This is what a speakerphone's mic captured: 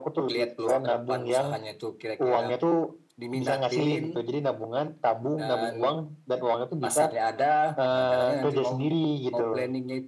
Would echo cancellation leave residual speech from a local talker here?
No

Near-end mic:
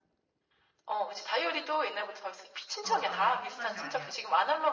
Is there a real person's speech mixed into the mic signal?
Yes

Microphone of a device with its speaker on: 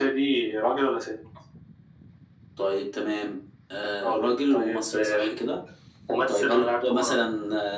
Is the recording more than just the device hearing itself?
No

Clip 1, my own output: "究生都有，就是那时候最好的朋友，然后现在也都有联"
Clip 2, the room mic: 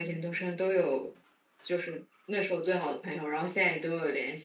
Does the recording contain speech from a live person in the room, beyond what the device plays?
No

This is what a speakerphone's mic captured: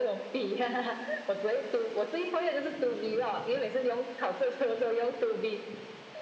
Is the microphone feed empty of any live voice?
Yes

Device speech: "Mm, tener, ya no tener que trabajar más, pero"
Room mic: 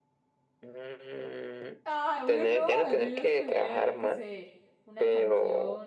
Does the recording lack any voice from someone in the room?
No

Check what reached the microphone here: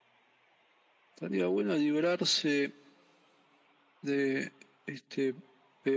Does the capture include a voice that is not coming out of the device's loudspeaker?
No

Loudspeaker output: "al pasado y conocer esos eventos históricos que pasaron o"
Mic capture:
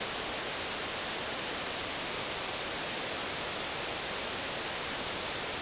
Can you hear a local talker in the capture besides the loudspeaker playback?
No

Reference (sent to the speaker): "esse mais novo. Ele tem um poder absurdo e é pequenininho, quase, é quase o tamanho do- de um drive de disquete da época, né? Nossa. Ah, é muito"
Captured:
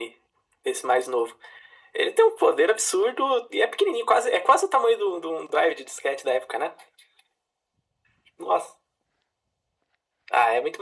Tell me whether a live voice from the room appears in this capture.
No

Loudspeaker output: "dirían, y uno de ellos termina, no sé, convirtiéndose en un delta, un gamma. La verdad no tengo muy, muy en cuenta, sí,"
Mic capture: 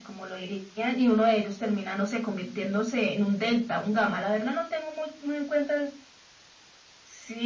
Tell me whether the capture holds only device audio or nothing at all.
Yes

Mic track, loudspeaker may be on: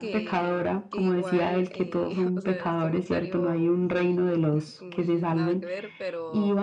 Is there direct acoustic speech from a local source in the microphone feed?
Yes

